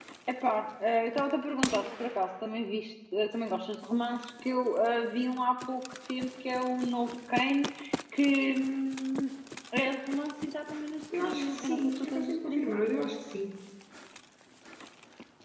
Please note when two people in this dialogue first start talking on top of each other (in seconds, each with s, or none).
11.1 s